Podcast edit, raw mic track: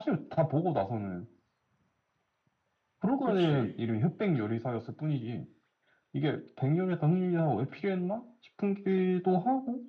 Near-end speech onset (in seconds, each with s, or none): 3.2 s